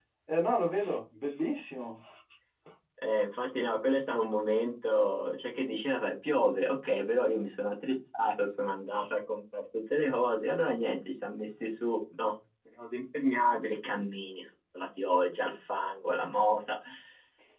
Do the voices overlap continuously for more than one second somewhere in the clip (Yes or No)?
No